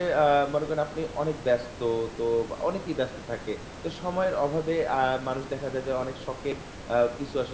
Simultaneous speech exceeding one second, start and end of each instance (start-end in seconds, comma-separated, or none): none